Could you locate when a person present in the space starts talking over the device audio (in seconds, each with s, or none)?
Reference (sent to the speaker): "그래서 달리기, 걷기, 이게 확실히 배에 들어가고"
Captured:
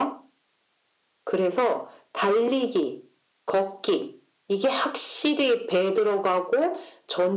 none